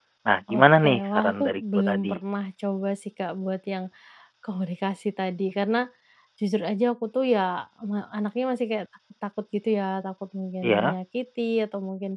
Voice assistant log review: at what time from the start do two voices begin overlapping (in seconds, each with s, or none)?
0.5 s